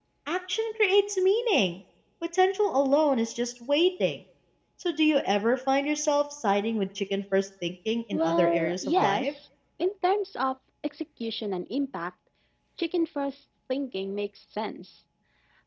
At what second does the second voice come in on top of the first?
8.1 s

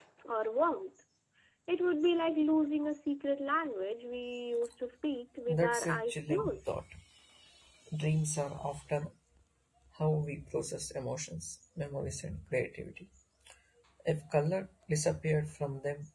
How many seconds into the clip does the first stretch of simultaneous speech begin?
5.4 s

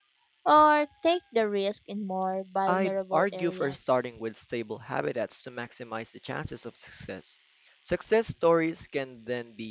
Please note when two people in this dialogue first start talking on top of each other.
2.7 s

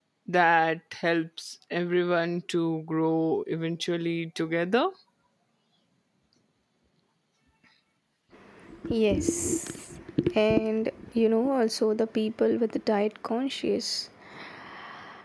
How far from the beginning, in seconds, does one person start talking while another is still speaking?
none

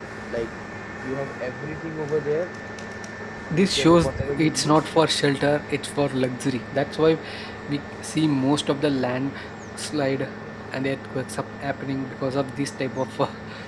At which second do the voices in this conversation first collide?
3.5 s

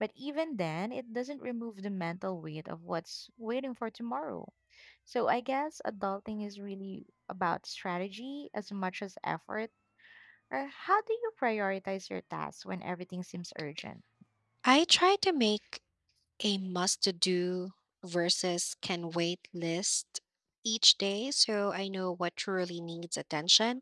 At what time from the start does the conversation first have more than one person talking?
none

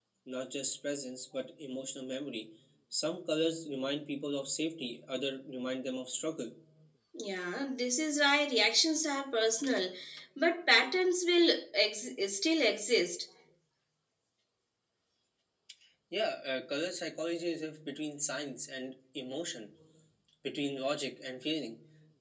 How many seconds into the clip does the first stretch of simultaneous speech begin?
none

